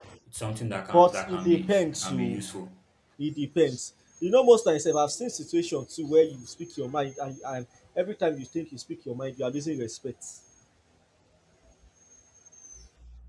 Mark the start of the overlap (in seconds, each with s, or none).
0.9 s